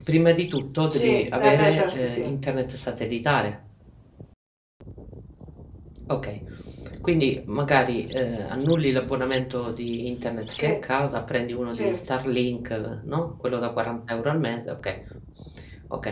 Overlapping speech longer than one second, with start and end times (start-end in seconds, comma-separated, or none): 0.9-2.2